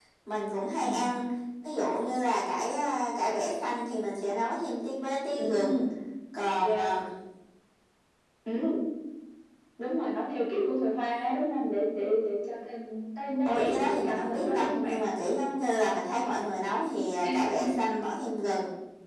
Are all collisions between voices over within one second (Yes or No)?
No